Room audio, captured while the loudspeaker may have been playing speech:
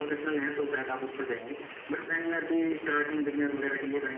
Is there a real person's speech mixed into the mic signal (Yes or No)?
No